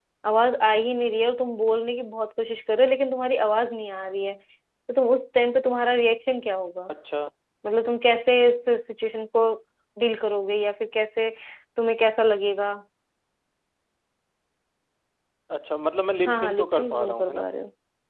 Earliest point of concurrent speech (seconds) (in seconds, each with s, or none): 16.2 s